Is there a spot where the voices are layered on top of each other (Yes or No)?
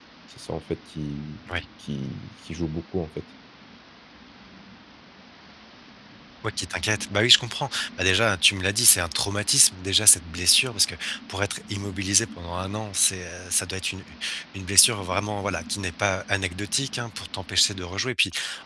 No